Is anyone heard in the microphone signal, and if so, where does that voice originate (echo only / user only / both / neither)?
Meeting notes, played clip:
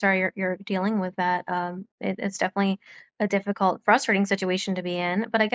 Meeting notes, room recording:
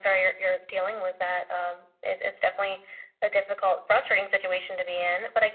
echo only